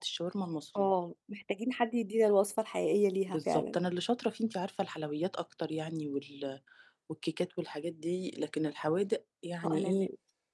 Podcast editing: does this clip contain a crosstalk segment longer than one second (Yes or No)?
No